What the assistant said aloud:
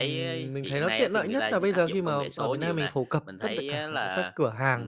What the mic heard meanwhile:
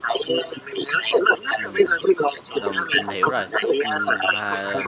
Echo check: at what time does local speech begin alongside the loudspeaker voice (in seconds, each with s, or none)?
1.6 s